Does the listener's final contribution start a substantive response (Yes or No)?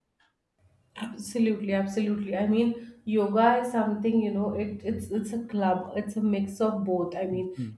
No